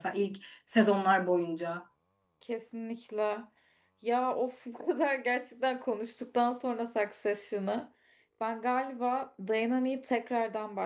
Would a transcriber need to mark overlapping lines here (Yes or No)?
No